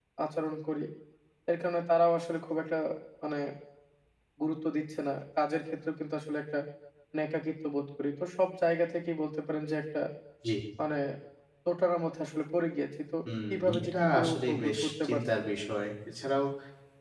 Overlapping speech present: Yes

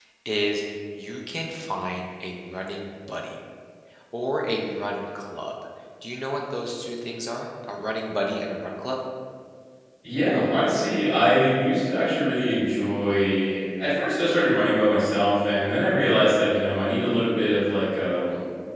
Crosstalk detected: No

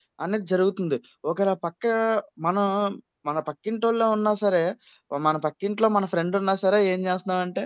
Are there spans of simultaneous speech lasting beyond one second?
No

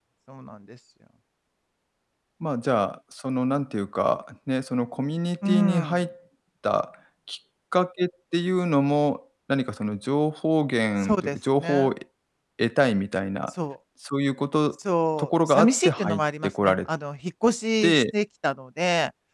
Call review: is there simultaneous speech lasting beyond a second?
Yes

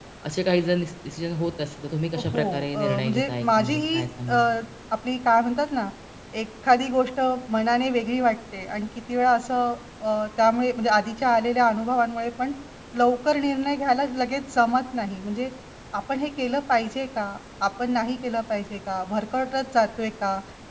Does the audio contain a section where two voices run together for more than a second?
Yes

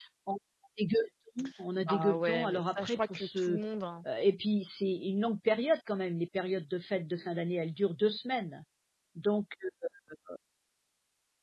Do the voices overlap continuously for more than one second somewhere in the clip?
Yes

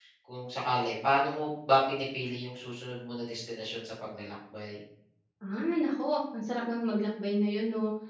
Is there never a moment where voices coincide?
Yes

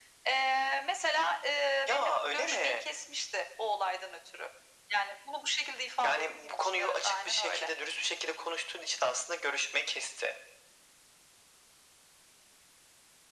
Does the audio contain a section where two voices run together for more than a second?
Yes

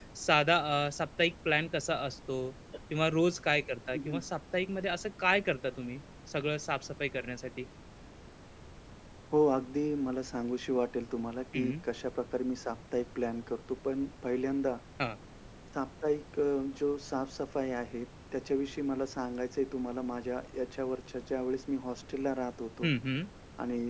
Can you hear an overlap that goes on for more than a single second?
No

